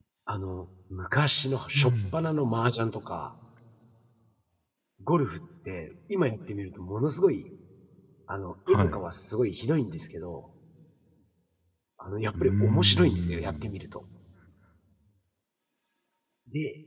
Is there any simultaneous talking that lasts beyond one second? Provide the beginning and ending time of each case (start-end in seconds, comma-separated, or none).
12.4-13.7